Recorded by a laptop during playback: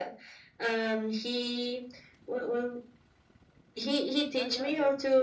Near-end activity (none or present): present